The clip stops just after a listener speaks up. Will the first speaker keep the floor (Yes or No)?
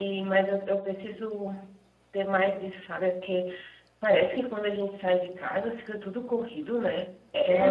No